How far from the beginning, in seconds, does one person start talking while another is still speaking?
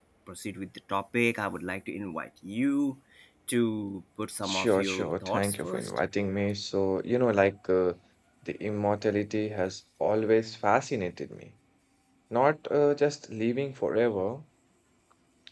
4 s

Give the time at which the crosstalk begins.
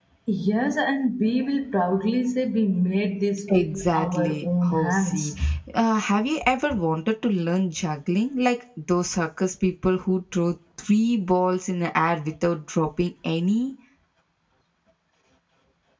3 s

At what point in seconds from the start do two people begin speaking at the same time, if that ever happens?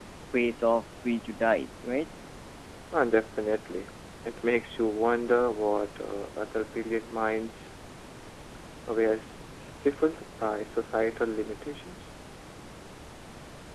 none

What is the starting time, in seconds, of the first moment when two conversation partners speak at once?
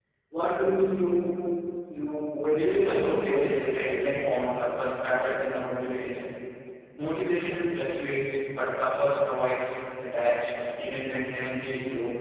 3 s

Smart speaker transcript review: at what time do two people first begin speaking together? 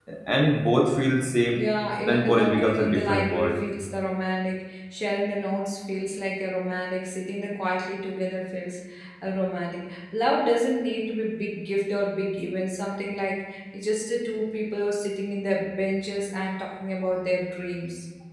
2 s

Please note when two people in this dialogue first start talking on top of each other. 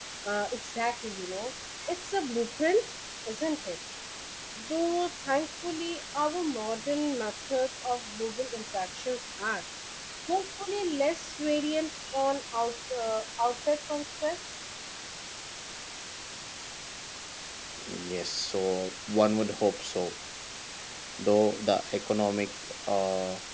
none

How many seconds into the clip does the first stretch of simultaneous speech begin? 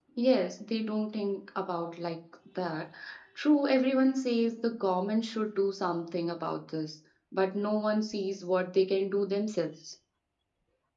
none

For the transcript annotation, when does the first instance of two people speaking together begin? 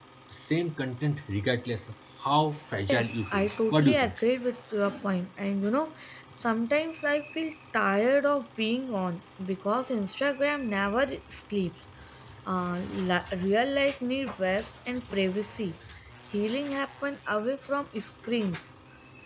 3 s

